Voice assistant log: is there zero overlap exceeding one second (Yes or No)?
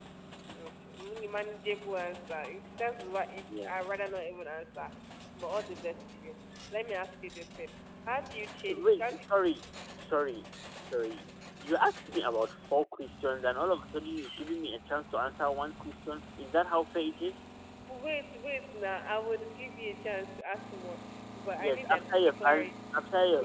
No